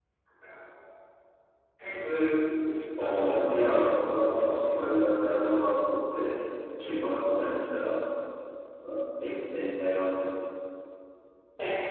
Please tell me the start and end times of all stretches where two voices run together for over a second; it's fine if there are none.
3.0-4.9

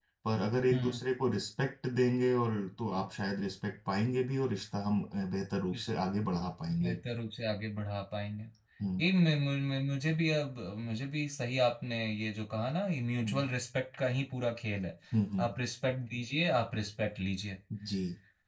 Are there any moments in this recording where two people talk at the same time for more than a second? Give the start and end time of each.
none

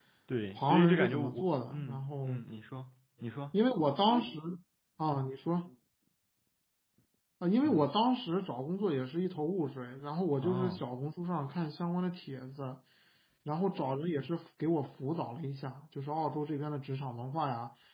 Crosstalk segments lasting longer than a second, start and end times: 0.6-2.4

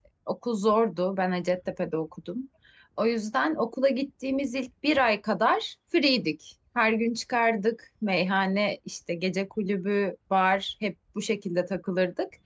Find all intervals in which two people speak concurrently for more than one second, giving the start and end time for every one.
none

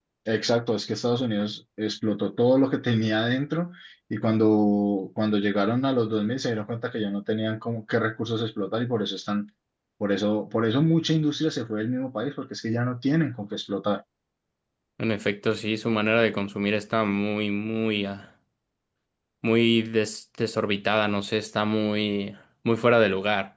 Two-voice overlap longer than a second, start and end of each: none

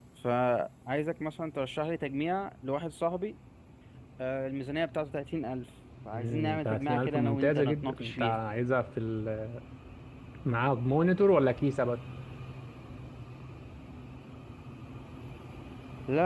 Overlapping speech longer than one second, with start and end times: 6.1-8.4

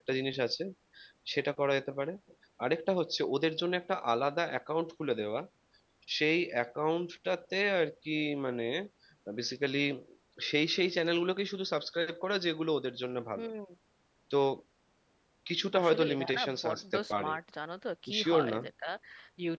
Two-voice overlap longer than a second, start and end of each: 15.8-17.3

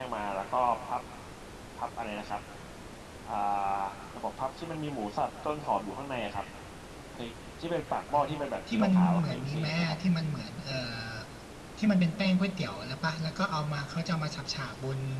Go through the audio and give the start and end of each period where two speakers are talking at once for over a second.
8.7-9.9

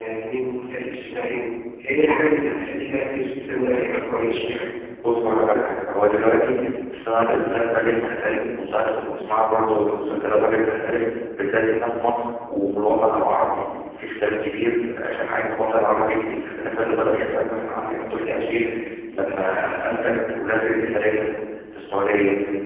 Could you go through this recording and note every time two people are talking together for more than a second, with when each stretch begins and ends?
none

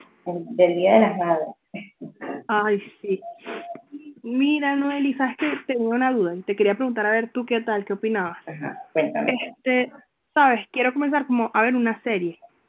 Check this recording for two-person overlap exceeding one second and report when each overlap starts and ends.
none

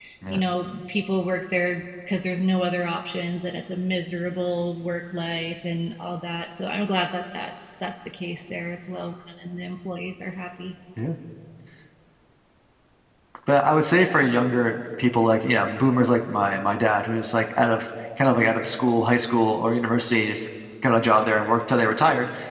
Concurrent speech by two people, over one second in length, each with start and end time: none

